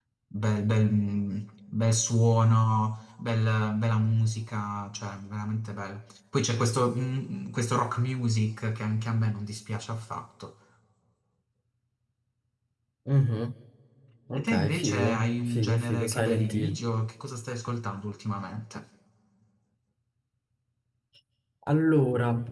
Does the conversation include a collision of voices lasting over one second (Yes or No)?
Yes